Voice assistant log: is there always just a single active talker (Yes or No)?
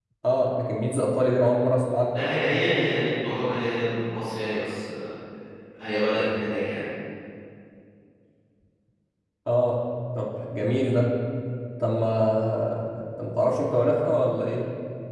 Yes